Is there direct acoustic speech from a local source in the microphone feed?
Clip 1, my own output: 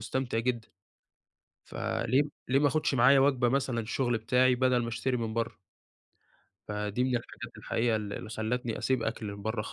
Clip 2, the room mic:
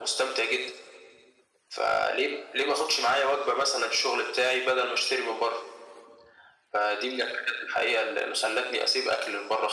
No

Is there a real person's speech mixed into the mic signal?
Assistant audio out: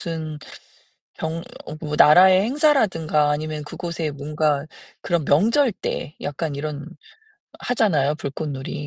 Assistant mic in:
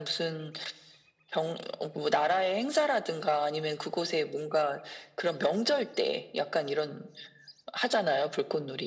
No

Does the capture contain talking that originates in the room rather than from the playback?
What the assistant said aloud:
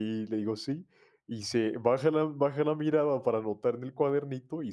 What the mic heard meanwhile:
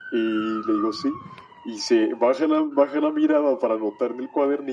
No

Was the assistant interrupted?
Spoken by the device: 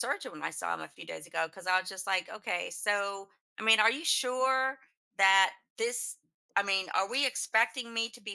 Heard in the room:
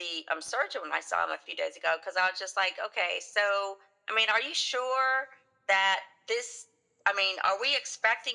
No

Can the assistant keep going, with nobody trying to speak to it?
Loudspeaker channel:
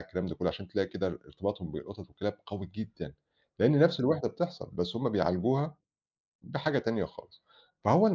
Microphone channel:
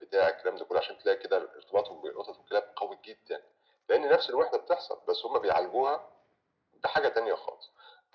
Yes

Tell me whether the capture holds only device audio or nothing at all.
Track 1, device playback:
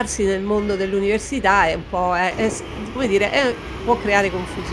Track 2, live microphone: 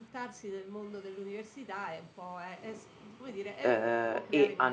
No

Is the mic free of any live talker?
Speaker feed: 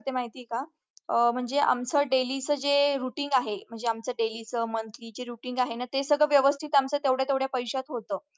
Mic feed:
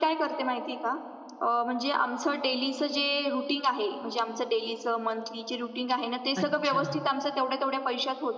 No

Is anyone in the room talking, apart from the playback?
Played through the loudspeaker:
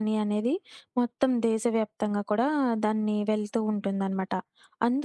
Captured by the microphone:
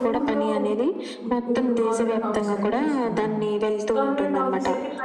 Yes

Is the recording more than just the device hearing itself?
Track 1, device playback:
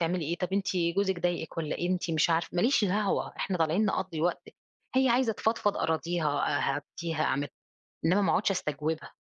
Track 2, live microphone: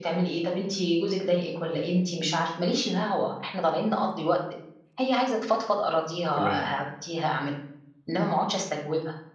Yes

